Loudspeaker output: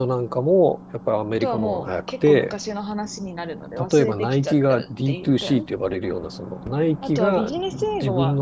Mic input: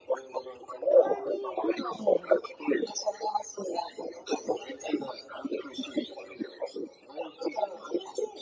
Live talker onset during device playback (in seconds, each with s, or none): 0.9 s